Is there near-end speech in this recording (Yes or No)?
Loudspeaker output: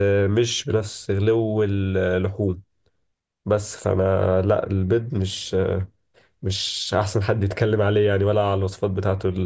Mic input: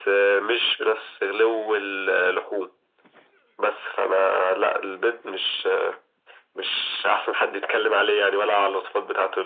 No